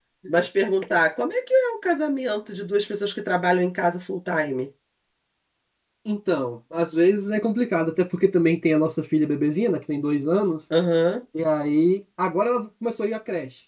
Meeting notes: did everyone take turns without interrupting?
Yes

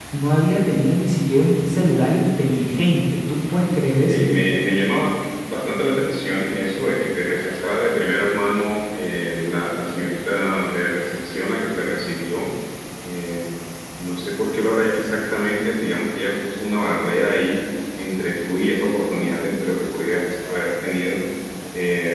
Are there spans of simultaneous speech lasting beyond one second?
No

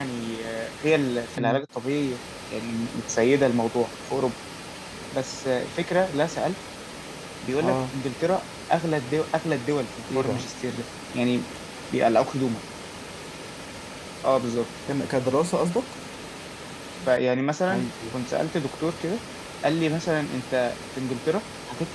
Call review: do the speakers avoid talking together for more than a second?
Yes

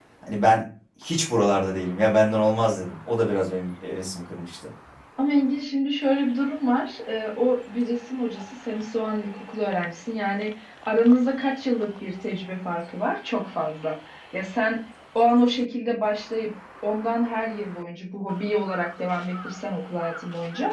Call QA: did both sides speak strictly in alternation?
Yes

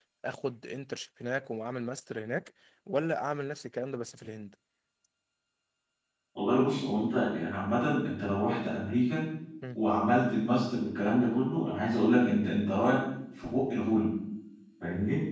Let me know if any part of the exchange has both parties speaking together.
No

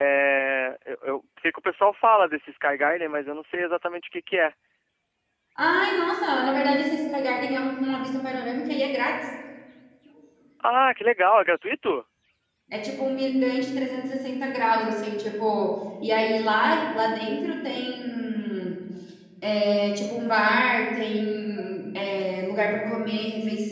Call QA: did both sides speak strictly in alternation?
Yes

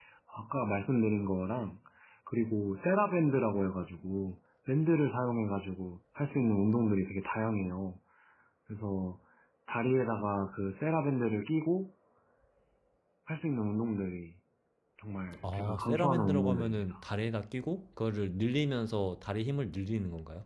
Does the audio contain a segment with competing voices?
Yes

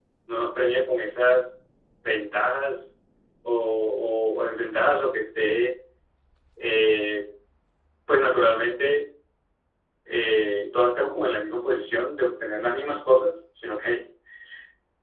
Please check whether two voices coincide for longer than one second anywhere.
No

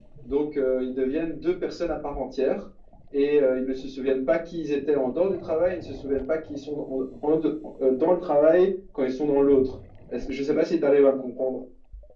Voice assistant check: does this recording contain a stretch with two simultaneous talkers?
No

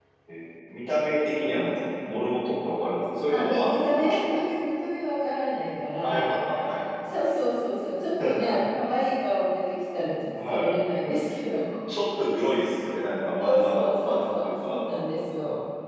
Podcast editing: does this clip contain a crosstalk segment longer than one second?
Yes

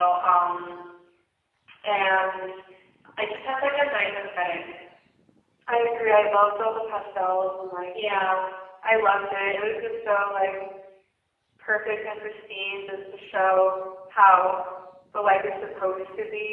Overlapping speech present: No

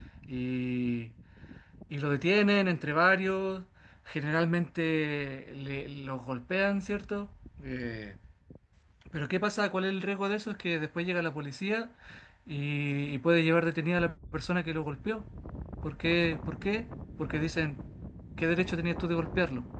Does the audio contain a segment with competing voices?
No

